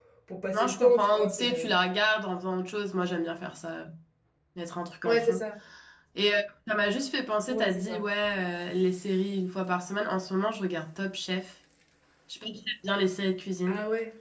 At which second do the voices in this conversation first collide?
0.5 s

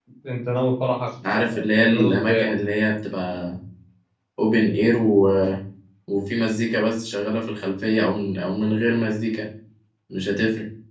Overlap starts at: 1.2 s

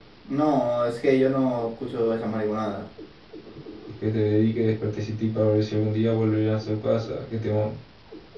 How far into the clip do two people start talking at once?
none

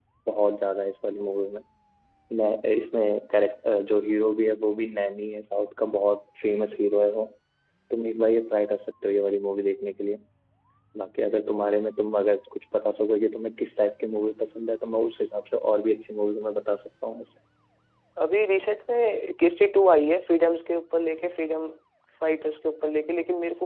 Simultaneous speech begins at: none

